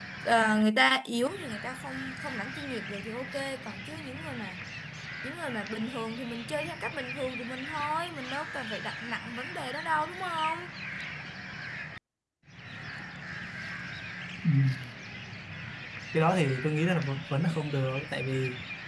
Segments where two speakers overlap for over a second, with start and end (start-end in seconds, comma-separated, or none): none